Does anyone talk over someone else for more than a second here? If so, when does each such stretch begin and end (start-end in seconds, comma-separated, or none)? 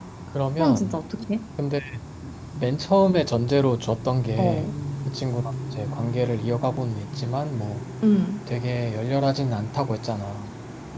none